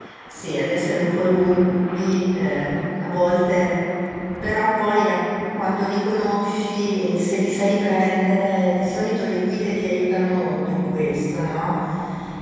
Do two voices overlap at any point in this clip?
No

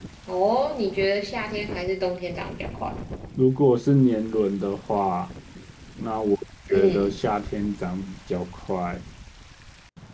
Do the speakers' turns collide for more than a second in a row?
No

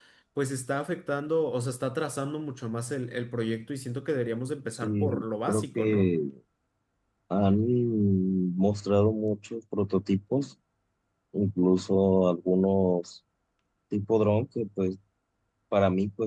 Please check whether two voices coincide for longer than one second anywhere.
Yes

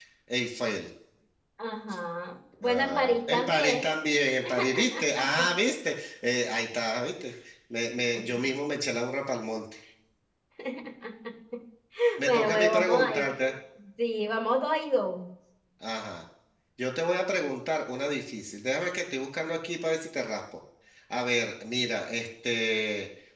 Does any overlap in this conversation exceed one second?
Yes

